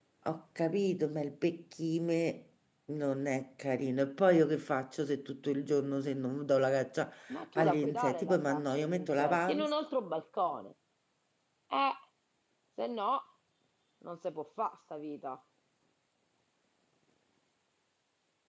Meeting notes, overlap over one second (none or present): present